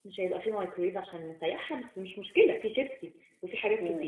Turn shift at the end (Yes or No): No